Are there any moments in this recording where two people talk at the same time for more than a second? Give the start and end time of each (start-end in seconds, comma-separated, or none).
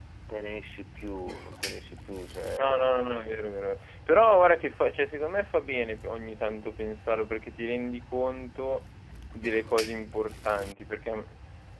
none